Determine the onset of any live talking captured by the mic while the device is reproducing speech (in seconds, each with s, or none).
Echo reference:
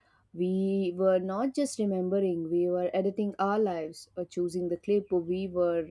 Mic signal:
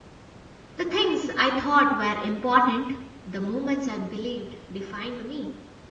0.8 s